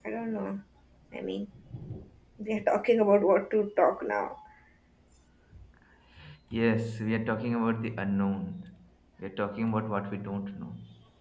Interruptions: none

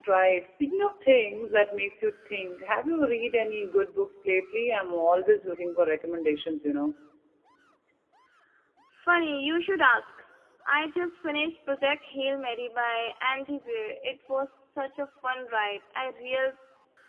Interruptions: none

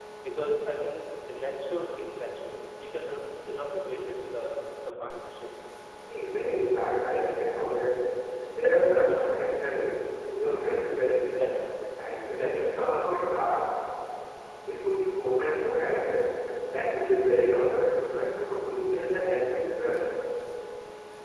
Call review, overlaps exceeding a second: none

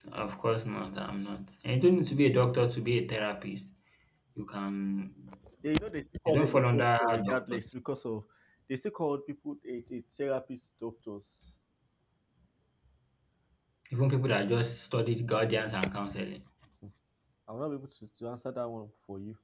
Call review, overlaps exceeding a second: present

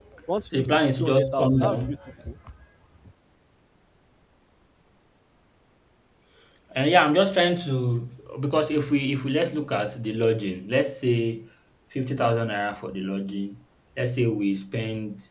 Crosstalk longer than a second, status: present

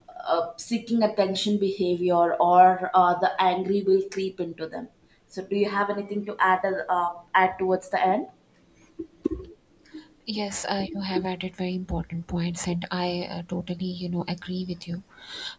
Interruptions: none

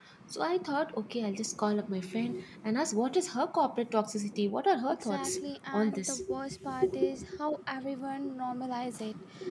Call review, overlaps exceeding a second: present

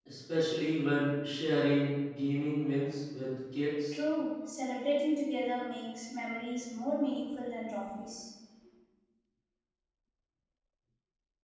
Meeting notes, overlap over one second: none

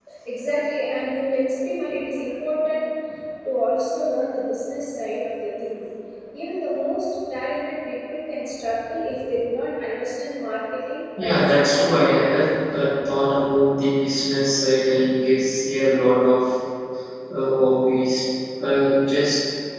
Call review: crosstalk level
present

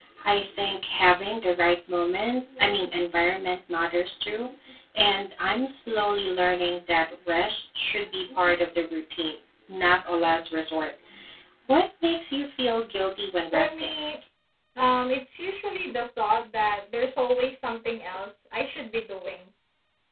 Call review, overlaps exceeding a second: none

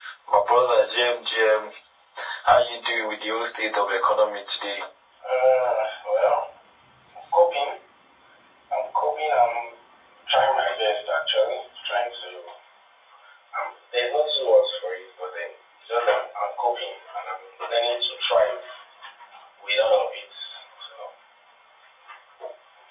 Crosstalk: none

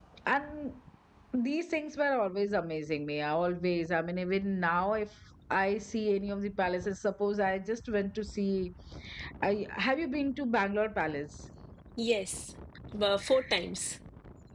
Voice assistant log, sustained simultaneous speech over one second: none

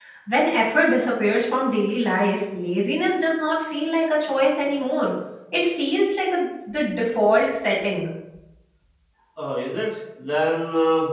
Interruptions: none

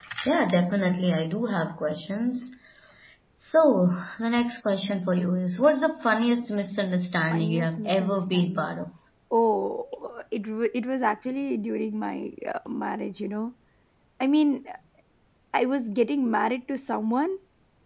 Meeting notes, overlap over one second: present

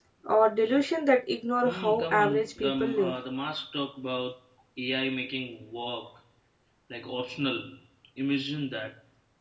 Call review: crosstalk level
present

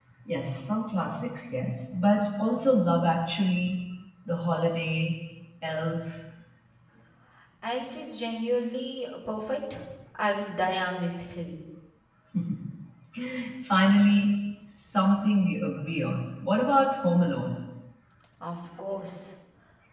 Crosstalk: none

